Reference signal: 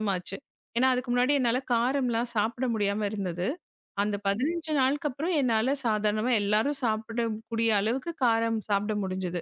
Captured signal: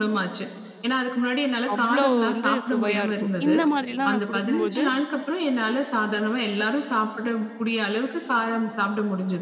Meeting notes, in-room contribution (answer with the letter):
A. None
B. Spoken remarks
B